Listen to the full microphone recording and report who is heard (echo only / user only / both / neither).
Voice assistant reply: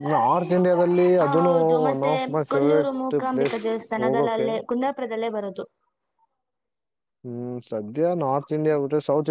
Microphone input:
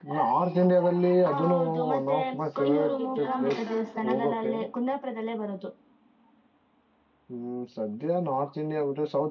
both